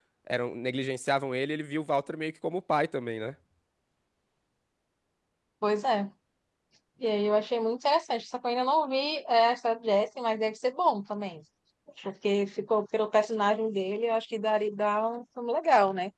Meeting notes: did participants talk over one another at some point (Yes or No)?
No